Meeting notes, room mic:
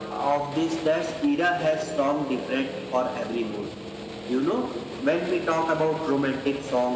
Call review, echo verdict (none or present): present